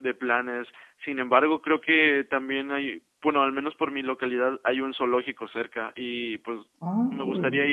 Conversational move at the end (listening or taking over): listening